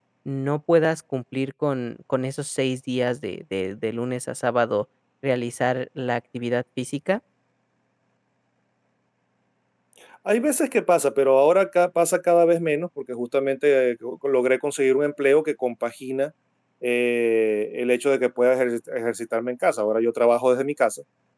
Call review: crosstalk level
none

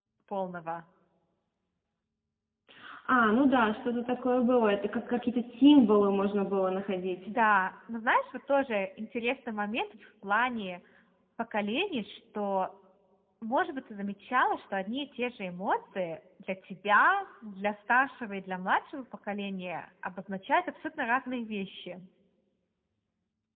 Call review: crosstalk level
none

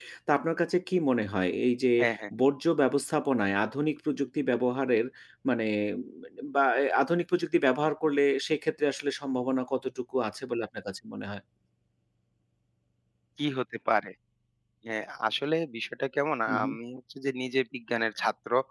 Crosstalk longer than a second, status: none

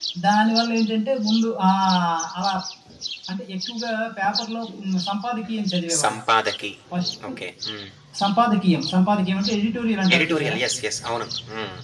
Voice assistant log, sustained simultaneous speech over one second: none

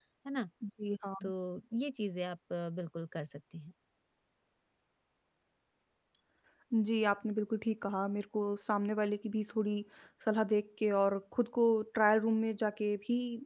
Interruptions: none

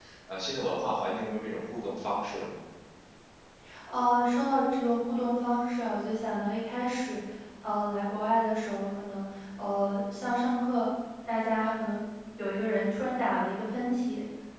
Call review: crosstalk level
none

